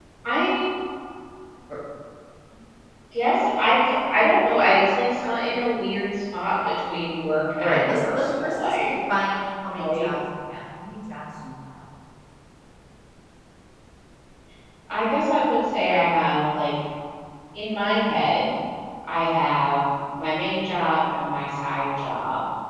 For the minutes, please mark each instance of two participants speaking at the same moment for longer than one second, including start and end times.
7.6-8.9

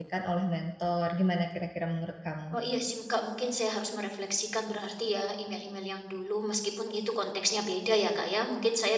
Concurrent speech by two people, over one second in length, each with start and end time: none

